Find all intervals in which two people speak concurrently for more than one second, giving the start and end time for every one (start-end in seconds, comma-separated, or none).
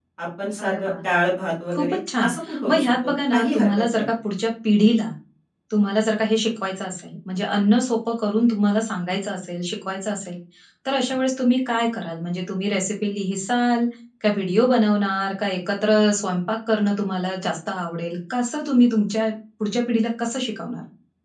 2.7-4.0